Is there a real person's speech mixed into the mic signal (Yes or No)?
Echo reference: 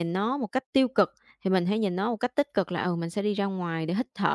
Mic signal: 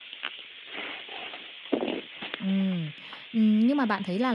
Yes